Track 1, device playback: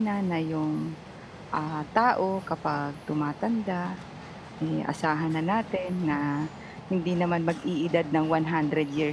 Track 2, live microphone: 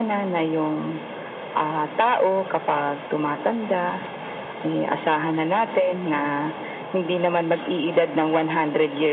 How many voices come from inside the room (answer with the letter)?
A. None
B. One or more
A